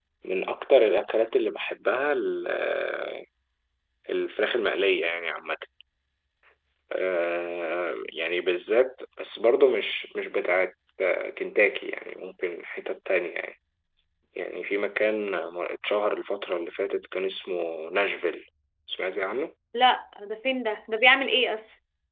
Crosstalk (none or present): none